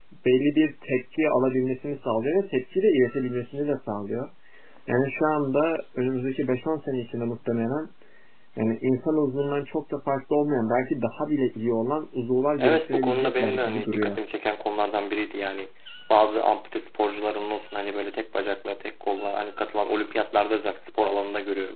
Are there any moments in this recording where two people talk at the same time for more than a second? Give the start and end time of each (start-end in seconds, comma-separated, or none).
12.6-14.2